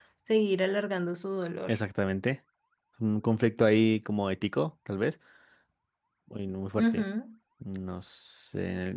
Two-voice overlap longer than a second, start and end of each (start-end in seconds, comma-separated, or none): none